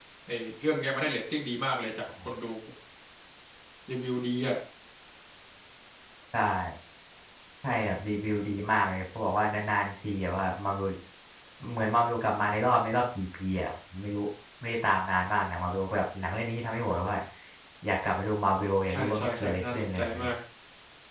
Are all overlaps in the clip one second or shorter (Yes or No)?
No